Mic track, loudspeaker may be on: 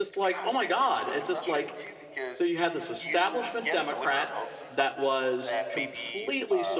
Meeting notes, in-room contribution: present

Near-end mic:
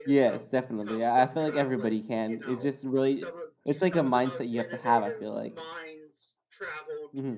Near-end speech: present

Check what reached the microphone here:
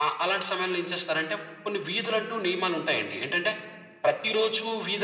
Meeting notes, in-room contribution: none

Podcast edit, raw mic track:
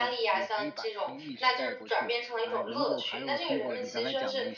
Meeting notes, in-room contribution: present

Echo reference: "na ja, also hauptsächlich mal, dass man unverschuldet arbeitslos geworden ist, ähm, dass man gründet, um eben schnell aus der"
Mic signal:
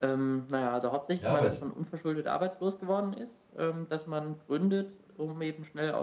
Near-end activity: present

